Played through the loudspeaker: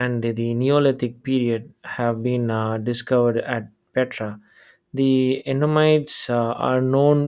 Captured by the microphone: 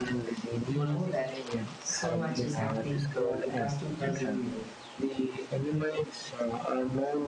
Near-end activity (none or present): present